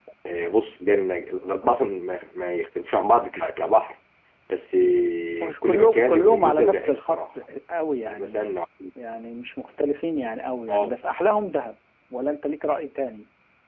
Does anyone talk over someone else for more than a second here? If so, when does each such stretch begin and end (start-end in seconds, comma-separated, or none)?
5.4-7.2